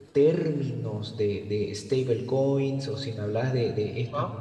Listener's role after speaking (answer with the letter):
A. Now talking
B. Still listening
B